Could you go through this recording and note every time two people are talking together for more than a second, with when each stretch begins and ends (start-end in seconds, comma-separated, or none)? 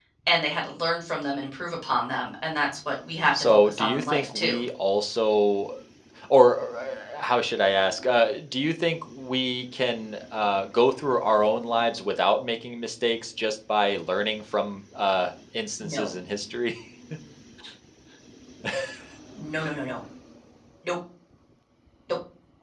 3.4-4.6